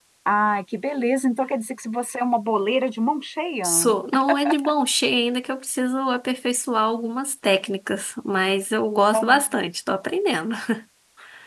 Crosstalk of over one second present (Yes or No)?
No